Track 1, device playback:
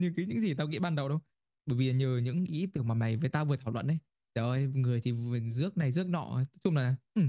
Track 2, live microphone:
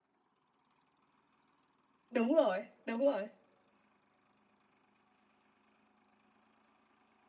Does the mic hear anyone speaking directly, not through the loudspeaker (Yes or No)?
Yes